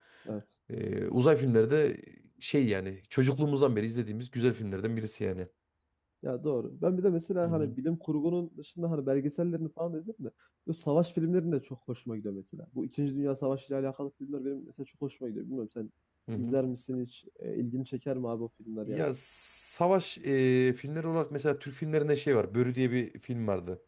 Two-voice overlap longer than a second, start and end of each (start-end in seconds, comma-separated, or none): none